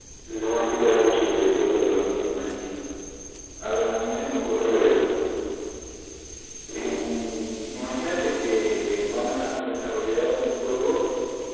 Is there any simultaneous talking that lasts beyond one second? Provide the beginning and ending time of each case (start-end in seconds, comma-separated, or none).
none